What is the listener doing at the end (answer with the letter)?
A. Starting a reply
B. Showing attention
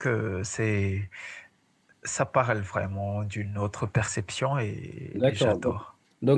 A